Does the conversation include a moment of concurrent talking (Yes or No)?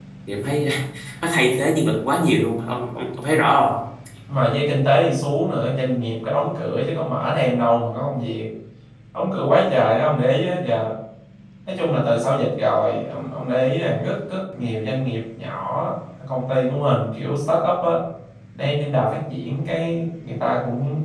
No